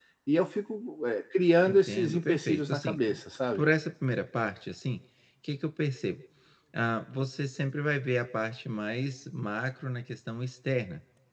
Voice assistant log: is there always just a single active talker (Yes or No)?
No